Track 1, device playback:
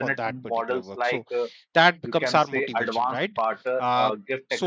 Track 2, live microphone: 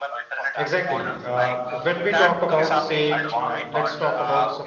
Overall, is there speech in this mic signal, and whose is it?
both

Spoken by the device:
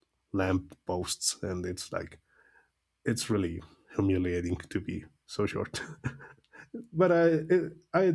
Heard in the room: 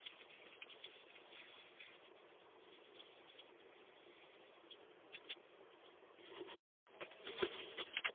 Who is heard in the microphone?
neither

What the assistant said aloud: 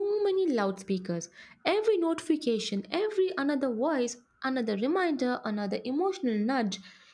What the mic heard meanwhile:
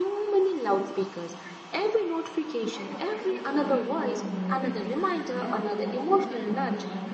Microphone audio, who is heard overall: both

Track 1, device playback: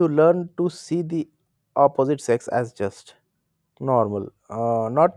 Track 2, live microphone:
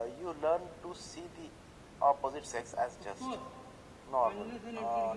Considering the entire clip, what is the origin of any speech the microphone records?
both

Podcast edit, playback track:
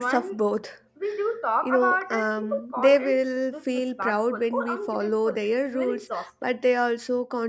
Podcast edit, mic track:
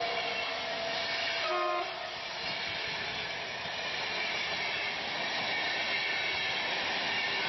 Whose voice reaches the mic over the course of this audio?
neither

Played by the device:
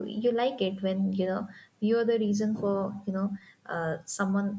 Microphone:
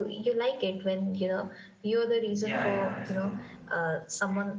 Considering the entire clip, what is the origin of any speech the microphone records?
both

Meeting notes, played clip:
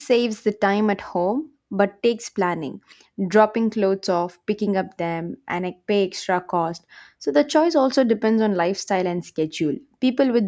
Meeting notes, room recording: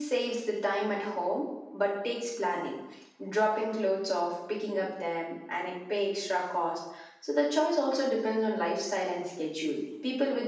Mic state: echo only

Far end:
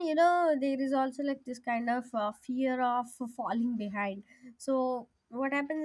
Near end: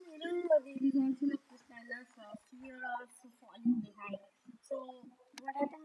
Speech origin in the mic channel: echo only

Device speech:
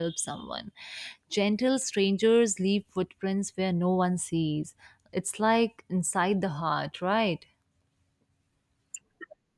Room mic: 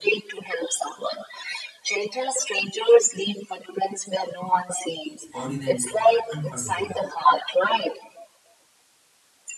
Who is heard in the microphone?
both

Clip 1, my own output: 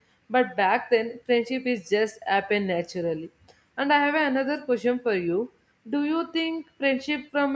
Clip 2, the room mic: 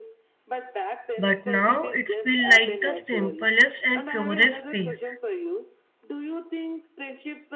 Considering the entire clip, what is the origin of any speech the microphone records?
both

